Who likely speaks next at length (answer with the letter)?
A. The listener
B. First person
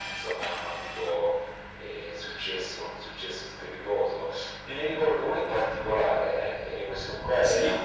B